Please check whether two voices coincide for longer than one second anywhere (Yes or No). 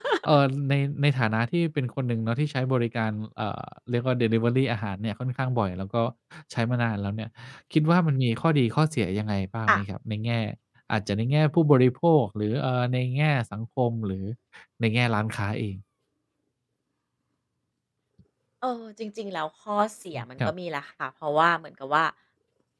No